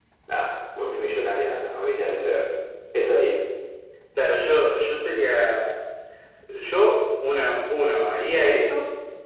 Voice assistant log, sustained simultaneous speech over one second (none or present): none